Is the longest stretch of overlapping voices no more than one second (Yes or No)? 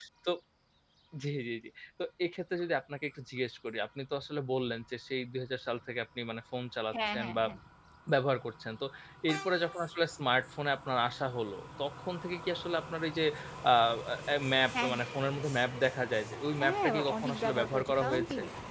No